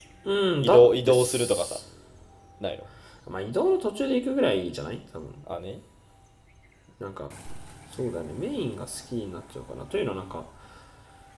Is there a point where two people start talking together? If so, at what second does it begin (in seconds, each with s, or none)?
0.6 s